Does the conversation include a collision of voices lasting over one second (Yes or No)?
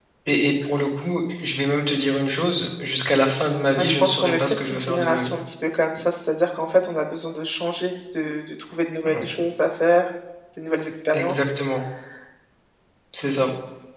Yes